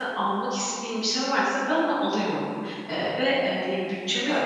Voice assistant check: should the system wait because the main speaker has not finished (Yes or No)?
Yes